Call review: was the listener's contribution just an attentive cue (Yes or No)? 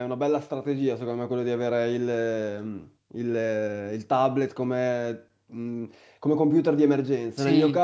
Yes